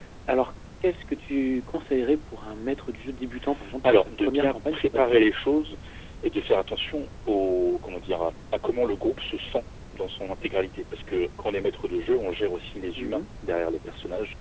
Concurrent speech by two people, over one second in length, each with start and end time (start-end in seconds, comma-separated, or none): 3.8-5.1